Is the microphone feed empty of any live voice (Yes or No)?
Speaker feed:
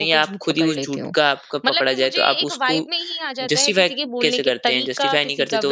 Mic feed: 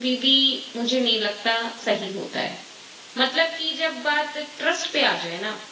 No